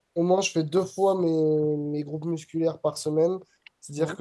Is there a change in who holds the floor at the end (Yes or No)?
No